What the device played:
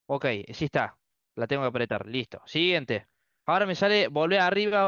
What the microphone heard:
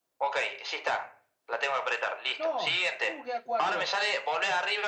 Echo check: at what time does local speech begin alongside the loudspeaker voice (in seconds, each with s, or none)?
2.4 s